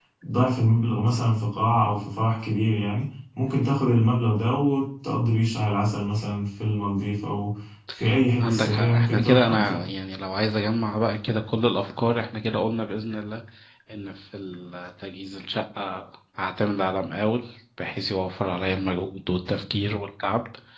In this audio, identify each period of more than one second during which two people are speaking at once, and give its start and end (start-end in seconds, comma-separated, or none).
8.4-9.9